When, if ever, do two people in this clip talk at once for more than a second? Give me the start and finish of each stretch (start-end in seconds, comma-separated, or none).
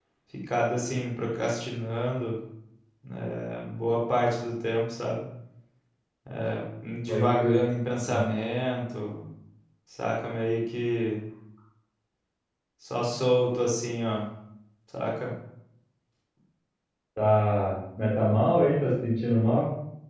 none